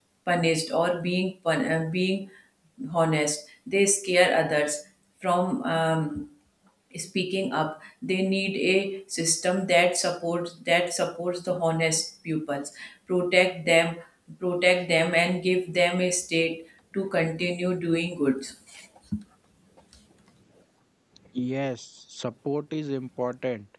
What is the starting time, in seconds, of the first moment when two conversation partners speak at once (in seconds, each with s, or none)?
none